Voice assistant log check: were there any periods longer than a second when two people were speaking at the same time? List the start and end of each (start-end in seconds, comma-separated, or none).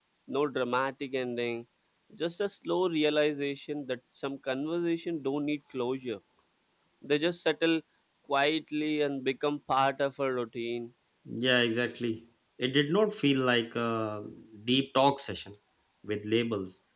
none